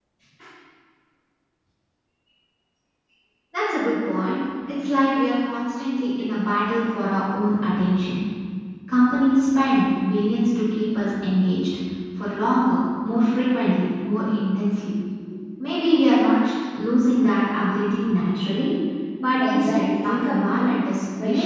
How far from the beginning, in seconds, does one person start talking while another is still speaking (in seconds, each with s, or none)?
19.4 s